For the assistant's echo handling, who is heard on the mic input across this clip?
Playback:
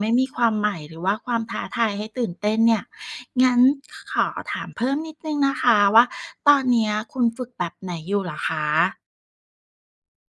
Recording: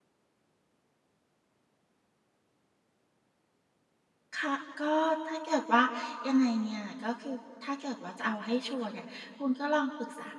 user only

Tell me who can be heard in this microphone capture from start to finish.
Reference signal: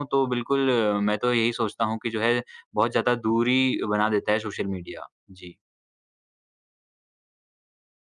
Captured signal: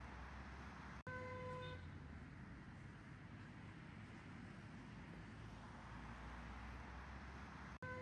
neither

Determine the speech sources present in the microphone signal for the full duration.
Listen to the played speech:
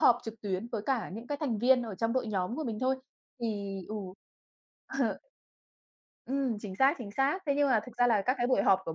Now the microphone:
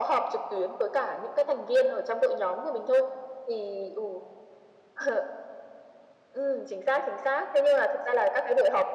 echo only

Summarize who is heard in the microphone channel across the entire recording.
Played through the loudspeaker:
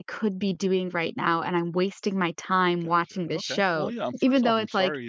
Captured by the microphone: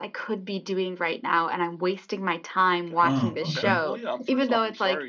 both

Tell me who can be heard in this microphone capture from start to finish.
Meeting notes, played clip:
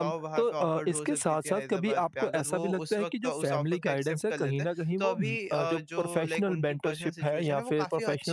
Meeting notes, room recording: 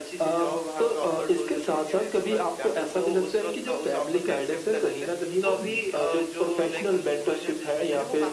echo only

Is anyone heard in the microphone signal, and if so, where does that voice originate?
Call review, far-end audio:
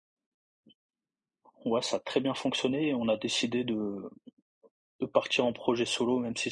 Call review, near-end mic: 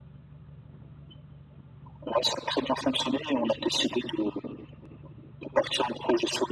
echo only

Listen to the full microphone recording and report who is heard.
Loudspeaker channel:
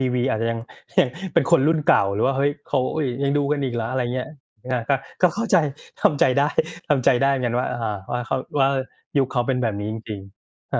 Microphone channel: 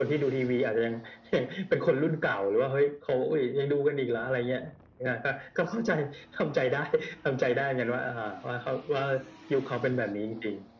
echo only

